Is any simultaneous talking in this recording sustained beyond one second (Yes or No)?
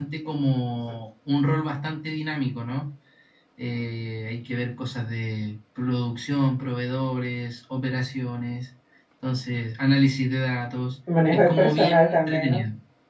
Yes